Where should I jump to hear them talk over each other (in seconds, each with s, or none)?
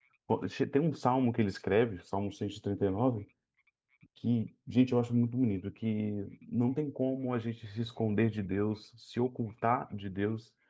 none